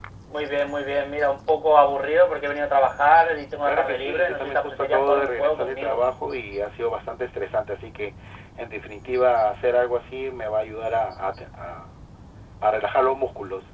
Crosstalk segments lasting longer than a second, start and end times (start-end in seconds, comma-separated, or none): 3.6-6.0